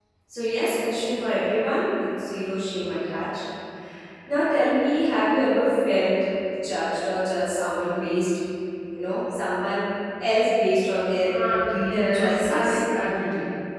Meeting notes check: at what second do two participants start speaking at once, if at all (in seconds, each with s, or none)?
11.3 s